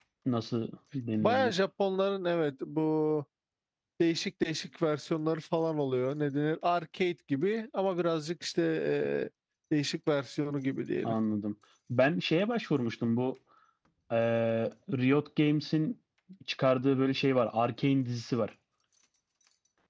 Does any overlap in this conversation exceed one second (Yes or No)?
No